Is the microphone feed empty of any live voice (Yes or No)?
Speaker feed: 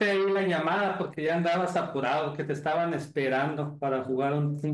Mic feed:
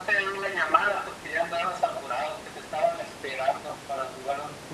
Yes